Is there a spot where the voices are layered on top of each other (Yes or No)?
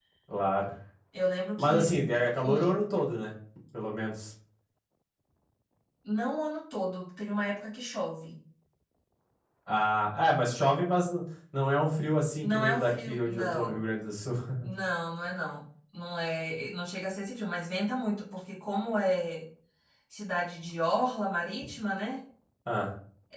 Yes